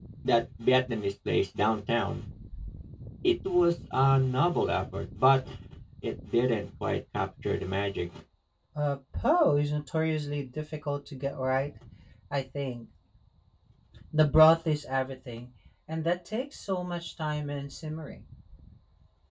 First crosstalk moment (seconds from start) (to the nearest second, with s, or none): none